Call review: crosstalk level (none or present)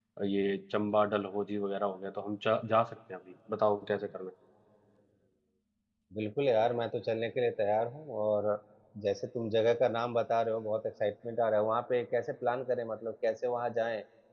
none